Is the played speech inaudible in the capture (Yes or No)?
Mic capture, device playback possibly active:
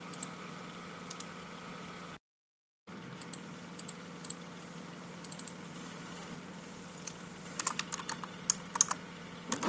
Yes